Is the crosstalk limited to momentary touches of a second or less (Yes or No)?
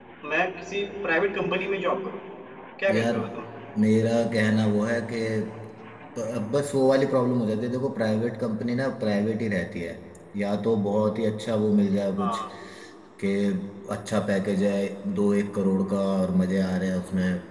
Yes